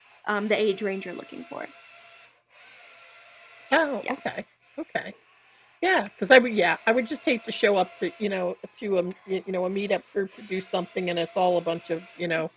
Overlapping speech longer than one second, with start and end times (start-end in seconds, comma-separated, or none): none